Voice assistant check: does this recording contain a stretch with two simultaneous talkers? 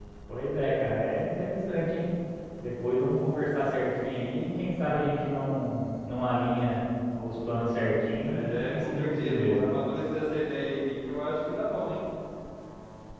Yes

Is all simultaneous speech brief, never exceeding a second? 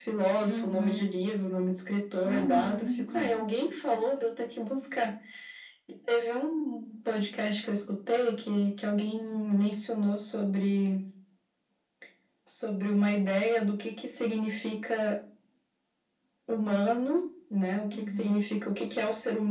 No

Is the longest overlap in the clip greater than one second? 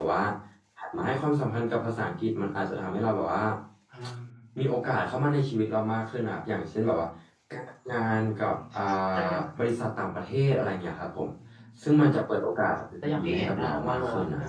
Yes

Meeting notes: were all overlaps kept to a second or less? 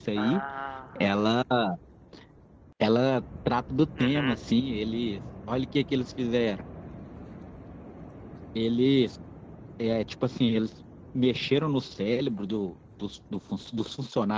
Yes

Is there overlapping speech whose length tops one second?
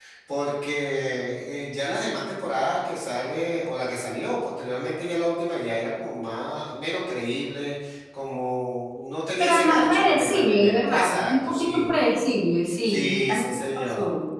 Yes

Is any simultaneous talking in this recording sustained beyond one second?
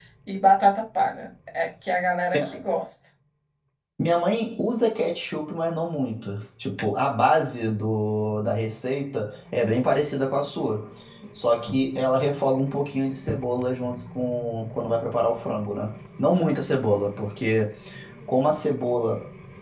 No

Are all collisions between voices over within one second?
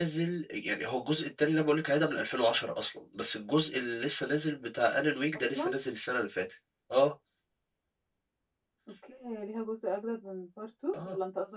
Yes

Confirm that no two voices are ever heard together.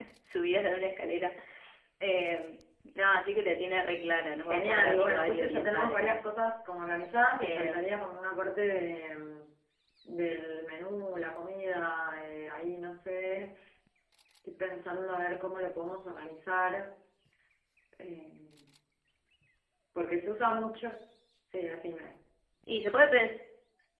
No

